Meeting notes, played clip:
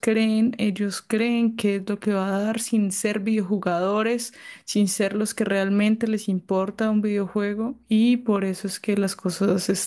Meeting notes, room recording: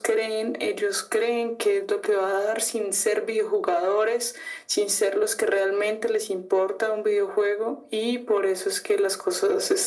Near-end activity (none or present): none